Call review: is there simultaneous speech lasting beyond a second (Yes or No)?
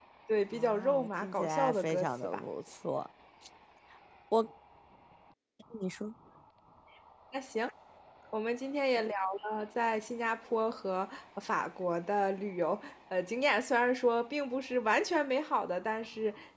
Yes